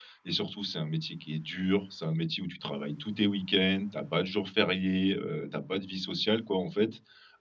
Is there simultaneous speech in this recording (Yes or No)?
No